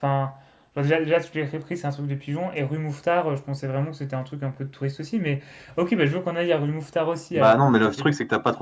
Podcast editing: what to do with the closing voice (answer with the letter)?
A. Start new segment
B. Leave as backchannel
A